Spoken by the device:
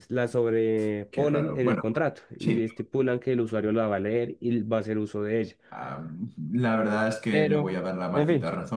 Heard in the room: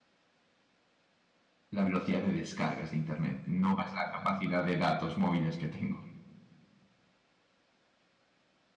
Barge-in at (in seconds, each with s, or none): 1.7 s